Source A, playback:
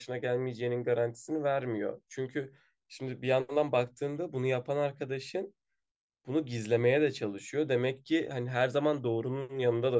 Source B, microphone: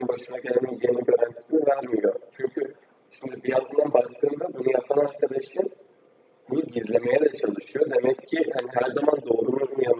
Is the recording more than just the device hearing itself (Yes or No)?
No